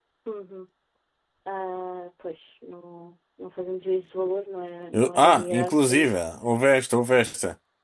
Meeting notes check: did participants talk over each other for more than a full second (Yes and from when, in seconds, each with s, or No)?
Yes, from 4.9 s